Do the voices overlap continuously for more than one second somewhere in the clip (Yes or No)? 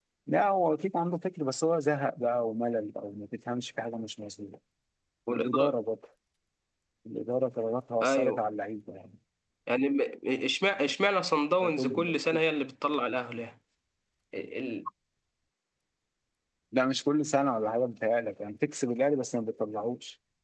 No